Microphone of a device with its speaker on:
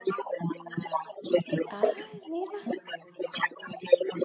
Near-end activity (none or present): present